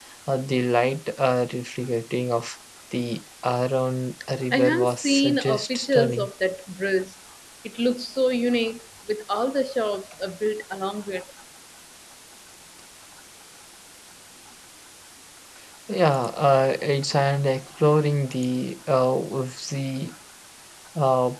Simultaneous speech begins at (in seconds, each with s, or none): 4.5 s